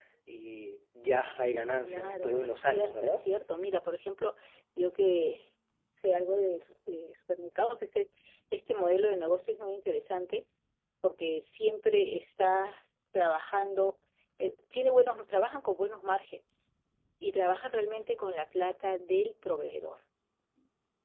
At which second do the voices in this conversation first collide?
1.8 s

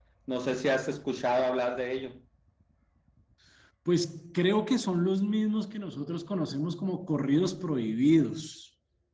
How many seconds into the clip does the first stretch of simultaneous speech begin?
none

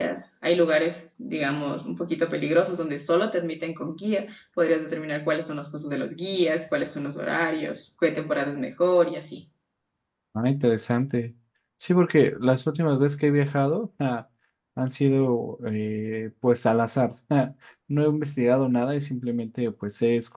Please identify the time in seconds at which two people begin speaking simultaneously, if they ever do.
none

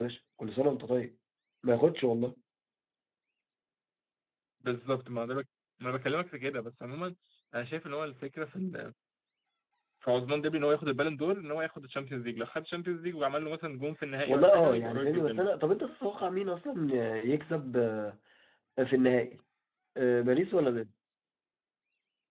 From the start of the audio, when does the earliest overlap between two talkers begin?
14.3 s

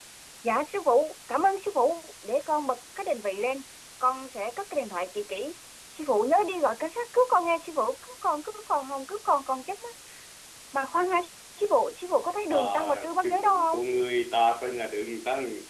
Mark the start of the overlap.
12.5 s

